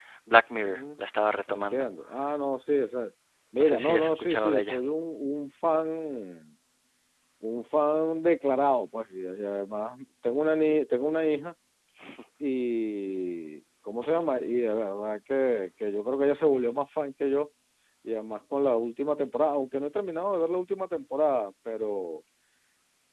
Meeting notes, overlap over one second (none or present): present